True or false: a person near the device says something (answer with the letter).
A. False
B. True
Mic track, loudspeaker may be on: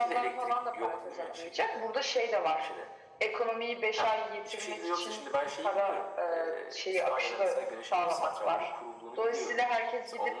A